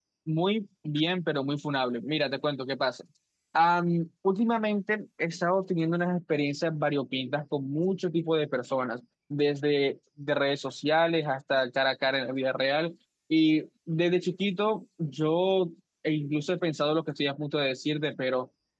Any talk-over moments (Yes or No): No